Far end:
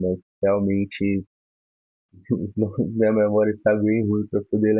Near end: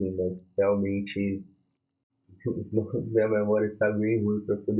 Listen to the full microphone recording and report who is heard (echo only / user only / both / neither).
echo only